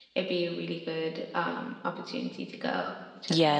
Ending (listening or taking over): taking over